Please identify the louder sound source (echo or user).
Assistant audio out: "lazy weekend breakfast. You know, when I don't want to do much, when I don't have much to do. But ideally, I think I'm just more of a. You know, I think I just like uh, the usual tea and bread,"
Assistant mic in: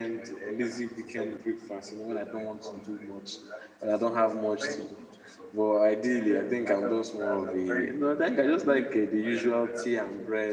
echo